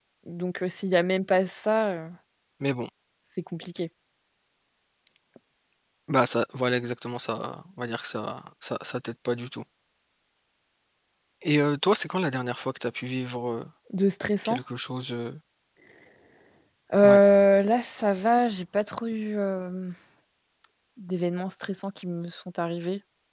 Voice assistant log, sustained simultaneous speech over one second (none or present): none